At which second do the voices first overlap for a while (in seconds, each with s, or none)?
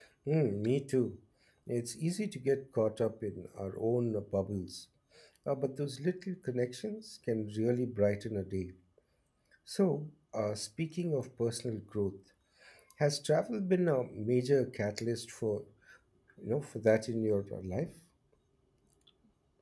none